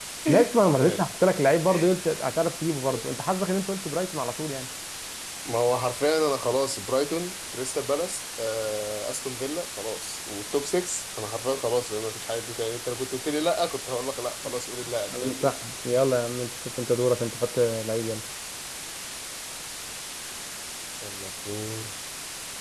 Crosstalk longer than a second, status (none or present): none